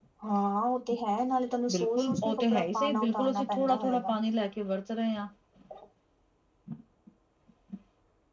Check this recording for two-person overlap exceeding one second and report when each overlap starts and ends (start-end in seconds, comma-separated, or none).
1.7-4.1